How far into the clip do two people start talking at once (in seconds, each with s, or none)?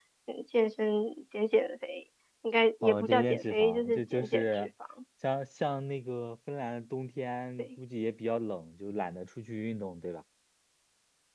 2.8 s